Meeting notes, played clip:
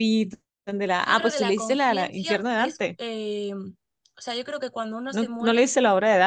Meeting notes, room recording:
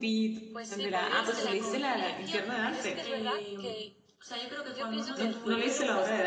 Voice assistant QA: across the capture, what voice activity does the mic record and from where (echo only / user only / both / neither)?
both